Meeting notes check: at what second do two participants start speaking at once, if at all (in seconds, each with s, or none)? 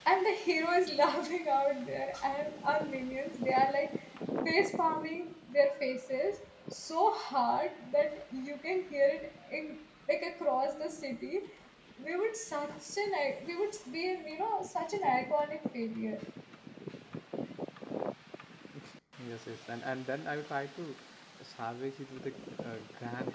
none